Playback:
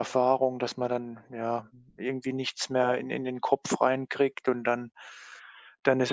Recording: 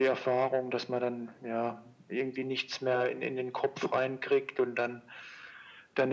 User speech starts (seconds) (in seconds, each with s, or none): none